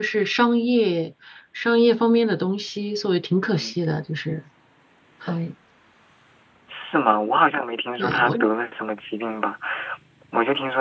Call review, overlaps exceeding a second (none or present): none